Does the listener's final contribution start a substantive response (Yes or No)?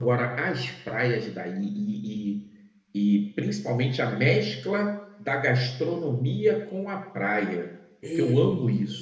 No